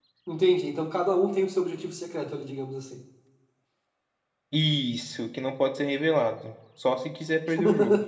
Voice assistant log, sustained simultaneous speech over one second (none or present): none